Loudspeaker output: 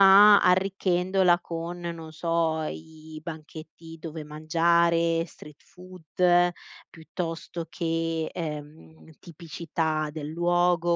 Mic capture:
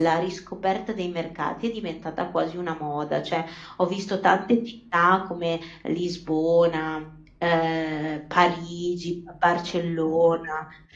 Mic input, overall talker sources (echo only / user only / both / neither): user only